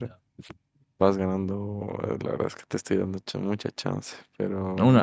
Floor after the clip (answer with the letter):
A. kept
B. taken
B